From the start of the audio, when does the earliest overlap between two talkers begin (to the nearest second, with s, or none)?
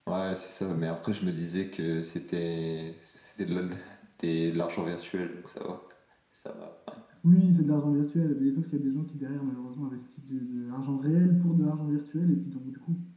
none